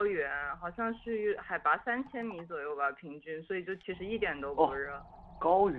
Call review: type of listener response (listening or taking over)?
taking over